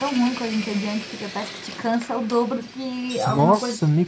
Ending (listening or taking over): taking over